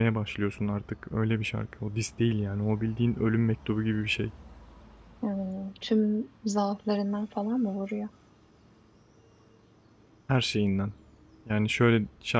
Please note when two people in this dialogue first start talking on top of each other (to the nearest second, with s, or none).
none